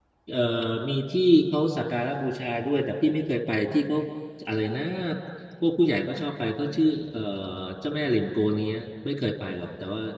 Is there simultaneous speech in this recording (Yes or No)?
No